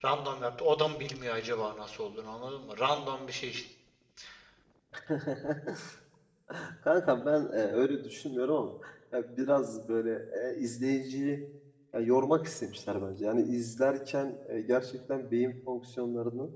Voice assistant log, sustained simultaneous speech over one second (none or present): none